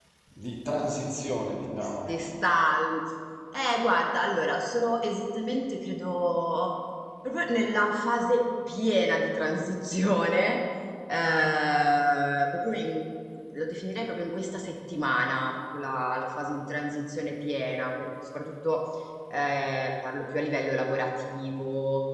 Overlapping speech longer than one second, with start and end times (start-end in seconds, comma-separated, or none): none